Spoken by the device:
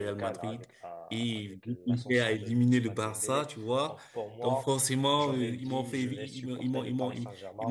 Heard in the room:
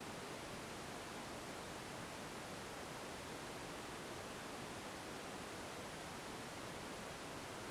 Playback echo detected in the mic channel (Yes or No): No